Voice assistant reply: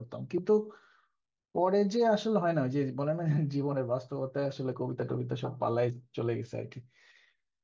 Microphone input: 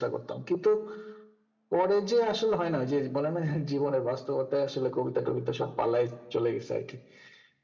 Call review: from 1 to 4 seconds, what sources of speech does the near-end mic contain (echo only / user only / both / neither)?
echo only